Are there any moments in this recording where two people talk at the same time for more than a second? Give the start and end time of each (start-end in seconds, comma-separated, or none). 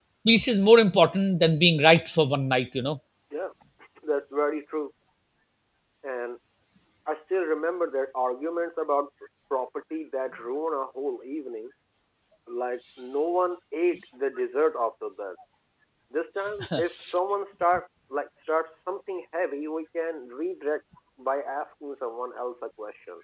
none